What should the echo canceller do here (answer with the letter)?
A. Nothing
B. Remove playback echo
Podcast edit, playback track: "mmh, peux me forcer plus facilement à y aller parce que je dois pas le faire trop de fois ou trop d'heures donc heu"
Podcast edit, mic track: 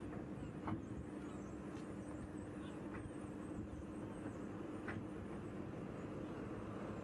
A